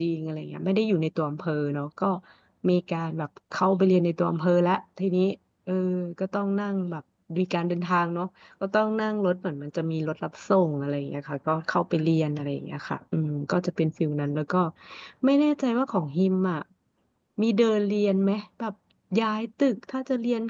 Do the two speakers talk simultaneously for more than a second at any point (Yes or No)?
No